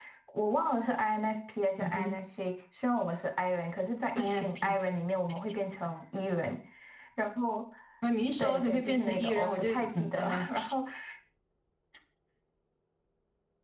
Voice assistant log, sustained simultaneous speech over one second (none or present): present